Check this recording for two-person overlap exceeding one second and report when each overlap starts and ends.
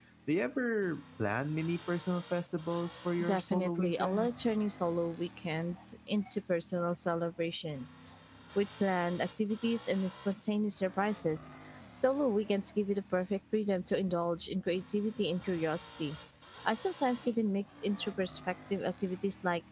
3.2-4.4

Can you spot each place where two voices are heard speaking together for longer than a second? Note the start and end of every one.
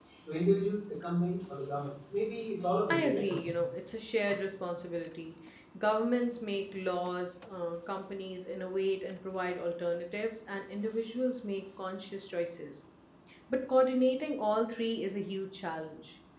none

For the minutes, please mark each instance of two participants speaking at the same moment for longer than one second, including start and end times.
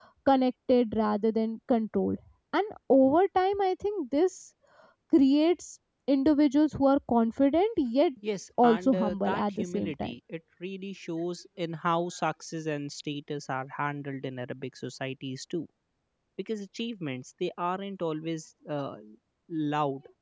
8.6-10.1

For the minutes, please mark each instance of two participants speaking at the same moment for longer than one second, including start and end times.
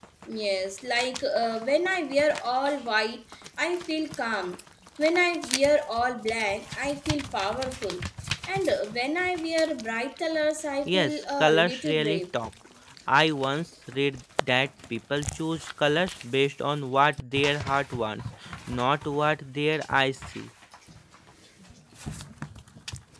10.8-12.2

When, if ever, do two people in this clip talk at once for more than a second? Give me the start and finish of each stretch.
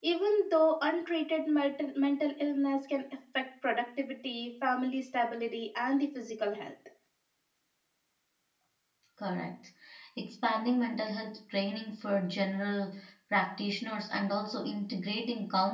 none

